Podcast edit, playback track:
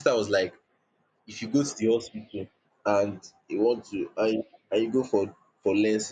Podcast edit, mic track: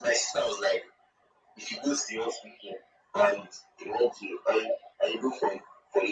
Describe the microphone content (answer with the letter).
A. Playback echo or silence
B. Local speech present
A